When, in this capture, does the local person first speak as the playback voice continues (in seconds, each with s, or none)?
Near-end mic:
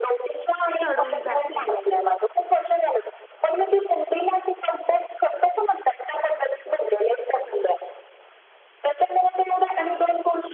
0.8 s